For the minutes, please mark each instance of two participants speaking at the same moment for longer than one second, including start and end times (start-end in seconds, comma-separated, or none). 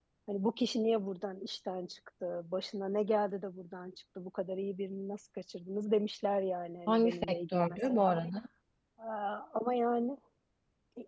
6.9-8.1